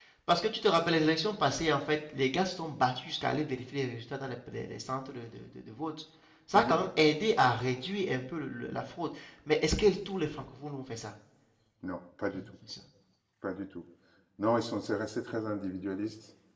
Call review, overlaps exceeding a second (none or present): none